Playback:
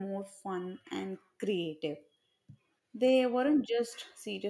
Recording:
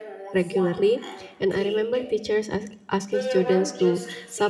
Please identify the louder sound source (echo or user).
user